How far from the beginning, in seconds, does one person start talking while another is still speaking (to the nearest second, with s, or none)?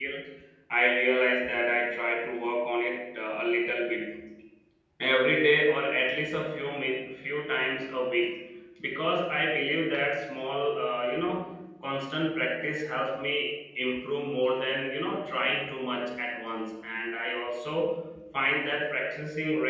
none